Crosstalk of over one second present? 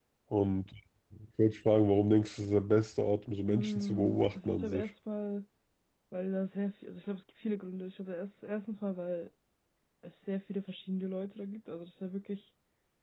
Yes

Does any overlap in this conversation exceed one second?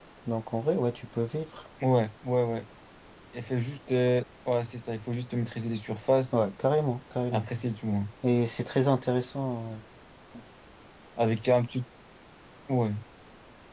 No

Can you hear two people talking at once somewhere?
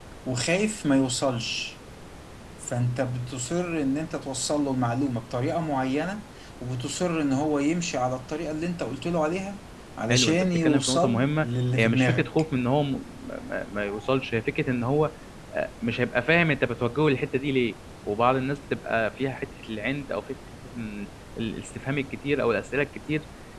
Yes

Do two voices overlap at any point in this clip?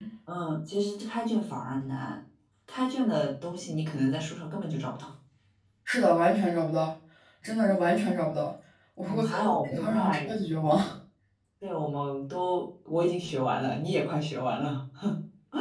Yes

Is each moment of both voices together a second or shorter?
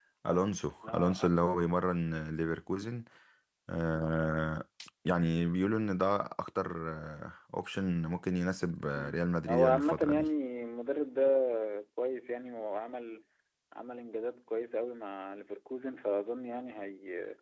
No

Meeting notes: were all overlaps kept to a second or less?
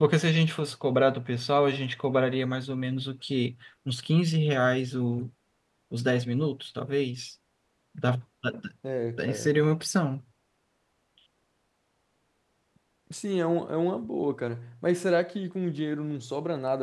Yes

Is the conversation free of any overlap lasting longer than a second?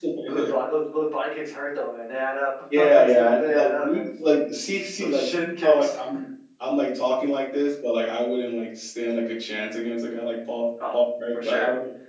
No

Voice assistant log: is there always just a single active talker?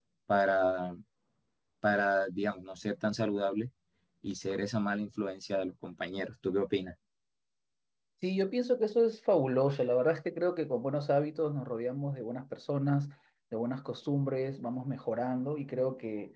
Yes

